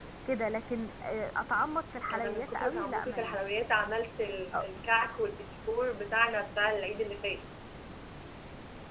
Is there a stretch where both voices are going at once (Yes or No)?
Yes